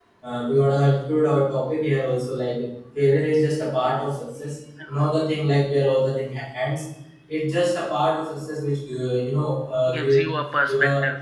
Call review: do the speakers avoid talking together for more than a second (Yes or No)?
Yes